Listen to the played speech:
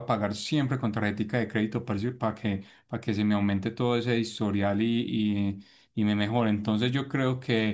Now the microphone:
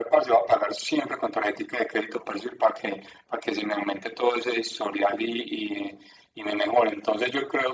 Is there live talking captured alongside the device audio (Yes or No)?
No